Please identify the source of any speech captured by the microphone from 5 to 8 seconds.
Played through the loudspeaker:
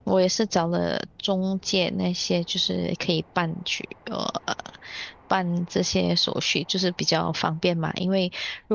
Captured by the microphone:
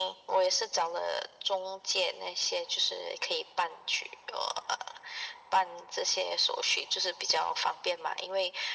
echo only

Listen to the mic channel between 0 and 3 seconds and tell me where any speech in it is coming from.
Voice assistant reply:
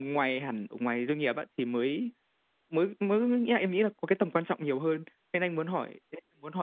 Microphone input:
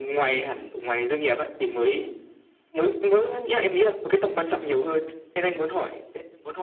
echo only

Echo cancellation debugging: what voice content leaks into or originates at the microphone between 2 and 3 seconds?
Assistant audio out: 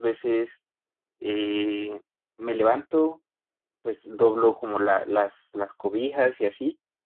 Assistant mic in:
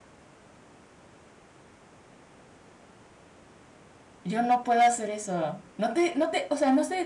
neither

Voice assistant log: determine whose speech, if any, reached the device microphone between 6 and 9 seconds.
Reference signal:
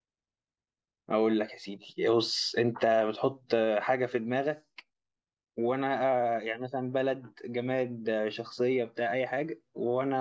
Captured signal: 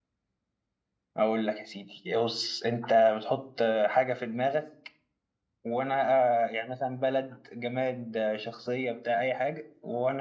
echo only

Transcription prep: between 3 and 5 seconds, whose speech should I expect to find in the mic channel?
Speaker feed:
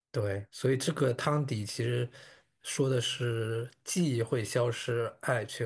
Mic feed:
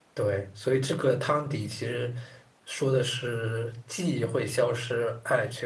echo only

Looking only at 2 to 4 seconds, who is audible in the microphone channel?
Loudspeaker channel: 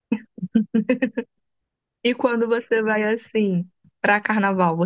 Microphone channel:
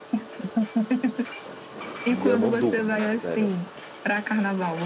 both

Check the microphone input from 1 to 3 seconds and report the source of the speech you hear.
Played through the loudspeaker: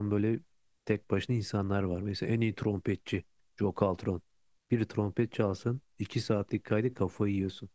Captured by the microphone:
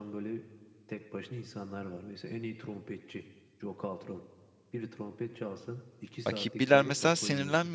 echo only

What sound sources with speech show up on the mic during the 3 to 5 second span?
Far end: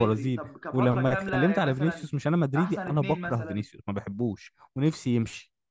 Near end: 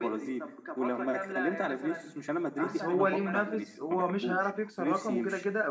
both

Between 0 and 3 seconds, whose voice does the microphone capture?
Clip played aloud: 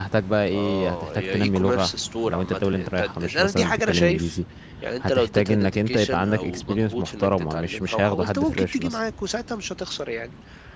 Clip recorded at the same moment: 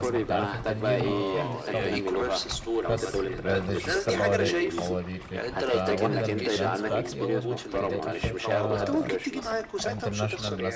both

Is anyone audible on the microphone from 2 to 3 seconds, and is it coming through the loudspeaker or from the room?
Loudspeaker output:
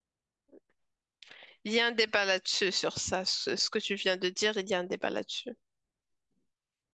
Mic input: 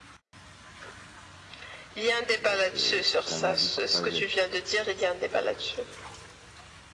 both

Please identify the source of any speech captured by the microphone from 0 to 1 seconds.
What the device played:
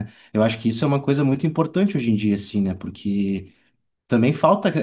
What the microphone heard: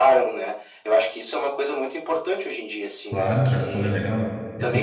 echo only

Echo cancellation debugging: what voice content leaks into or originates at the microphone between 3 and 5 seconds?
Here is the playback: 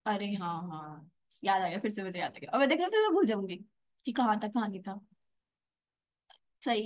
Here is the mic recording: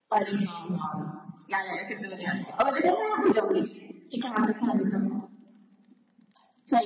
echo only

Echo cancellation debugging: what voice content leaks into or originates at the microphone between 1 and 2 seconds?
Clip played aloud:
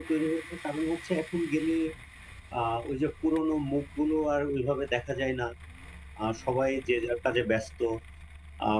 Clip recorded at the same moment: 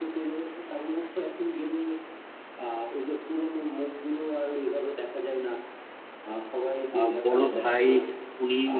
echo only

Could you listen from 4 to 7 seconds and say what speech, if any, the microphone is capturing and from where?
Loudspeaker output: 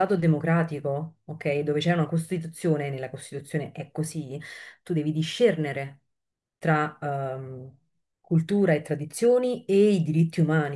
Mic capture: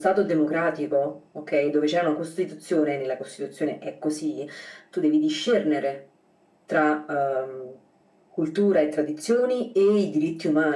echo only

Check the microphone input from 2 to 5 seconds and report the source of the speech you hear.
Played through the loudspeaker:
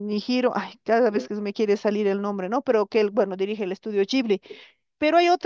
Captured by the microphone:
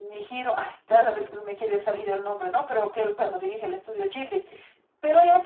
echo only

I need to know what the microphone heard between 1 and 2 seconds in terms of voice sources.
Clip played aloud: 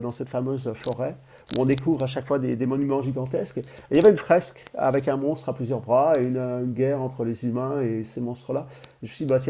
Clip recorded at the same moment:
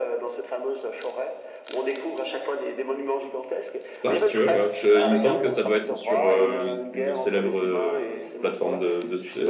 echo only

